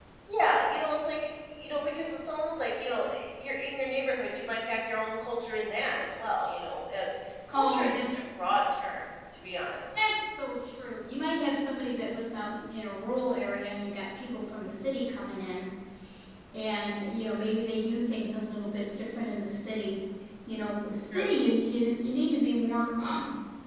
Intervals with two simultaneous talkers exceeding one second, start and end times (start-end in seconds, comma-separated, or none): none